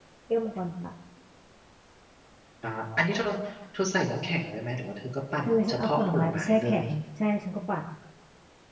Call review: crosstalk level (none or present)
present